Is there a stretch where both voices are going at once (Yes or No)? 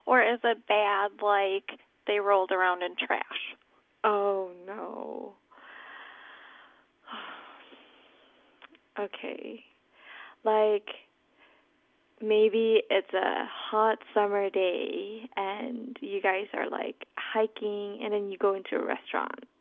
No